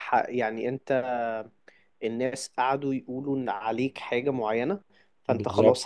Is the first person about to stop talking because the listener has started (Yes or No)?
No